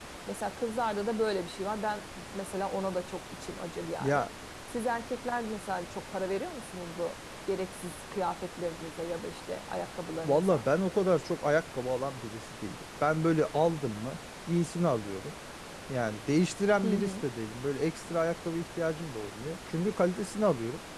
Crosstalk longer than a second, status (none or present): none